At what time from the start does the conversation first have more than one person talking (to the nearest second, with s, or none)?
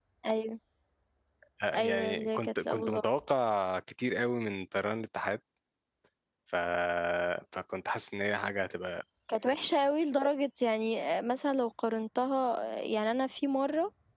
2 s